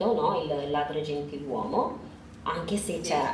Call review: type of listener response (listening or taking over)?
listening